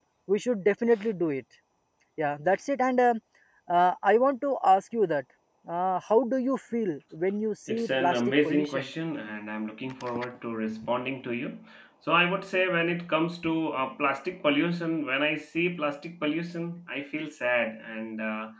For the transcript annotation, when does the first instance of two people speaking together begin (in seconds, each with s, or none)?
7.7 s